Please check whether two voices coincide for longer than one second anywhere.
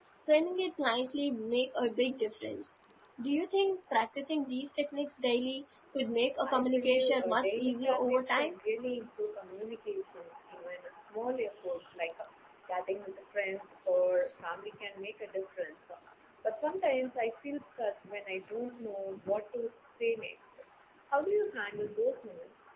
Yes, from 6.5 s

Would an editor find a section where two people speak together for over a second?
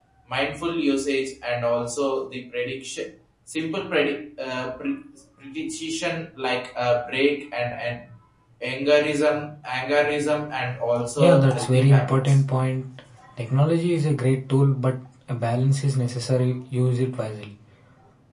Yes, from 11.2 s

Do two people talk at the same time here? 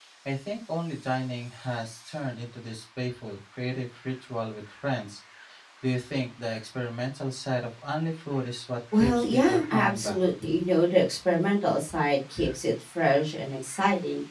Yes, from 8.9 s

